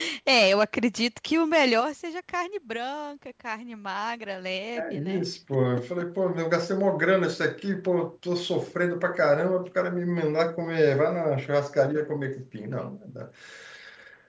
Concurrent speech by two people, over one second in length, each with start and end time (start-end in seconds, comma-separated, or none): none